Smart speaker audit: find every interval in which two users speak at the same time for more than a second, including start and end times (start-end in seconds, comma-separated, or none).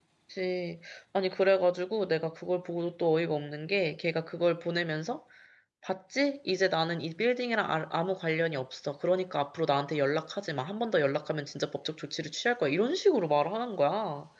none